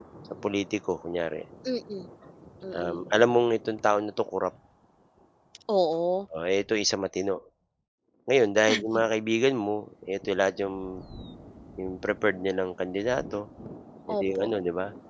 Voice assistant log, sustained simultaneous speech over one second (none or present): none